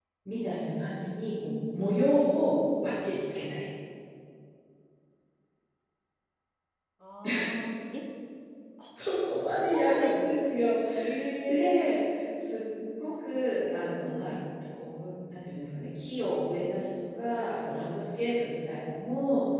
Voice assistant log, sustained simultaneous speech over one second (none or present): present